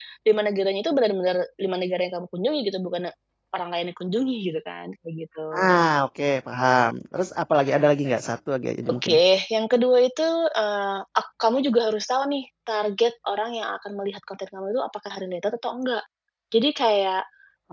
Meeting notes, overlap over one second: none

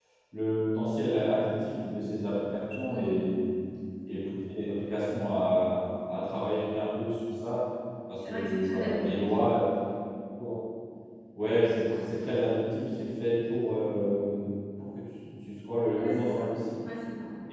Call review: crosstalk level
present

